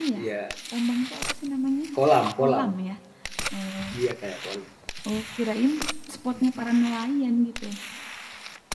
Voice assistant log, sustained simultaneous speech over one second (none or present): none